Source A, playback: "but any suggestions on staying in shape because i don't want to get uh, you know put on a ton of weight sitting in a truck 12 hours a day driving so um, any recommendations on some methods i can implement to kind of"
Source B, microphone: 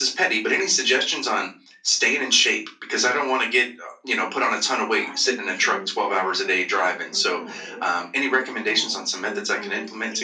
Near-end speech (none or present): present